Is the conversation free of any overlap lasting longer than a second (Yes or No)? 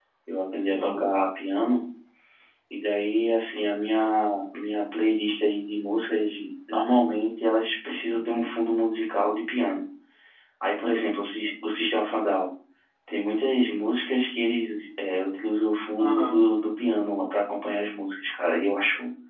Yes